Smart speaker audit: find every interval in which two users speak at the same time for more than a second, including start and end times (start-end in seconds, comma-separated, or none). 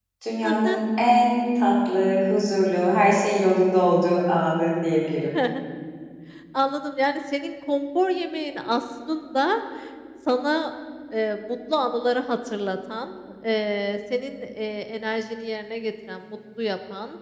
none